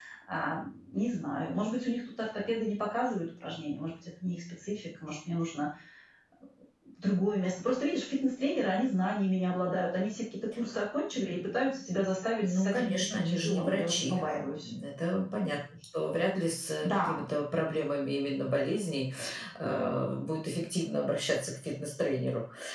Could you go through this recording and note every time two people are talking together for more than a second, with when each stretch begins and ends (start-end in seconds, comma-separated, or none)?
12.4-14.7